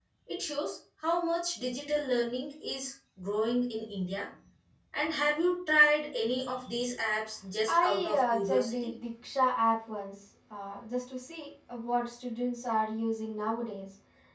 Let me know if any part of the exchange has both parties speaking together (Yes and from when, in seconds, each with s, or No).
Yes, from 7.7 s